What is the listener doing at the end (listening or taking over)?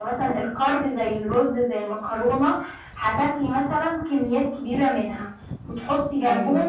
listening